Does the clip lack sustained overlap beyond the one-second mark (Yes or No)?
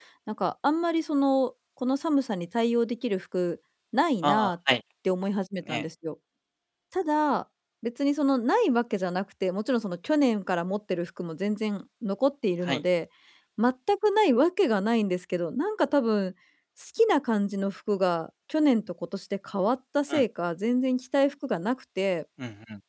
Yes